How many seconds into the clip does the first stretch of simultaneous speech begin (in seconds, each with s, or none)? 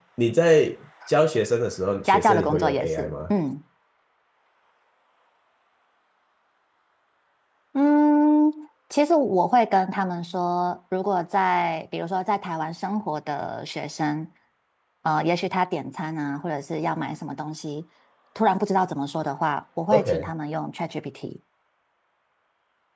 2.0 s